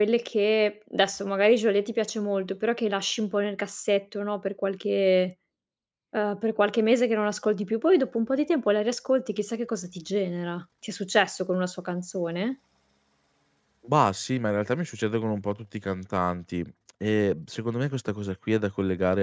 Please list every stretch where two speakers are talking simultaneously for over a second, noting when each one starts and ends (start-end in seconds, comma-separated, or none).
none